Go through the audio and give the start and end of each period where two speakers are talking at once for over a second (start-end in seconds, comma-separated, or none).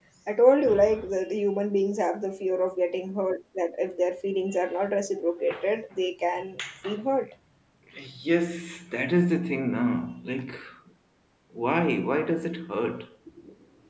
none